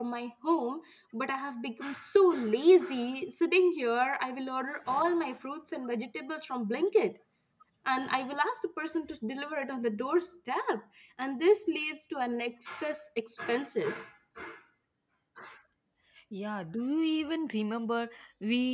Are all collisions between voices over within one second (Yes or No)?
Yes